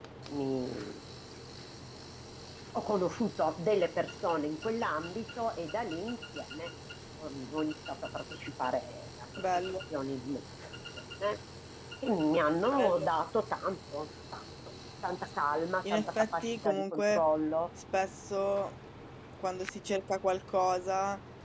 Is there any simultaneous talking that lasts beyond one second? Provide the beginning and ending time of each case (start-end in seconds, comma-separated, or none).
15.9-17.2